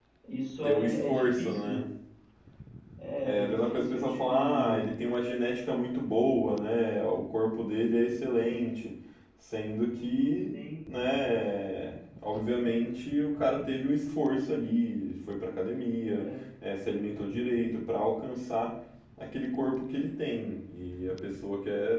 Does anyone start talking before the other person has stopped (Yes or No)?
Yes